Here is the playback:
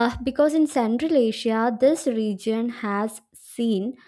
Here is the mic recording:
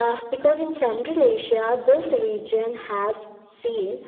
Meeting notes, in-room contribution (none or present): none